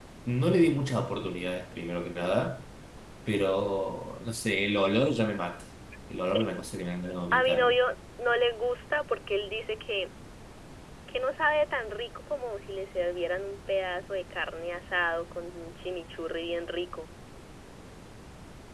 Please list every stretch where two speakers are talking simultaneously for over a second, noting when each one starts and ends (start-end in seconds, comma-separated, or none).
none